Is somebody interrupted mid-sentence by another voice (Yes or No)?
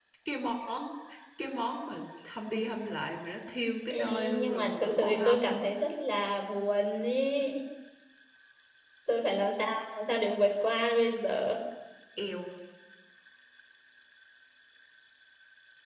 Yes